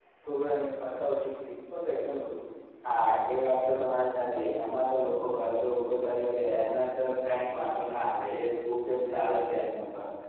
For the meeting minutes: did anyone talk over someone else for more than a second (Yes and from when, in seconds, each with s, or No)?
No